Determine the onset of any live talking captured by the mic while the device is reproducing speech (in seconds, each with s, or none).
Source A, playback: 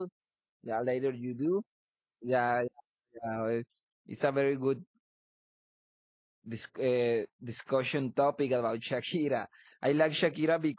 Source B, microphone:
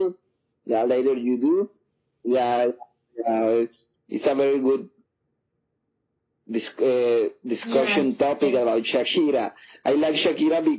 7.6 s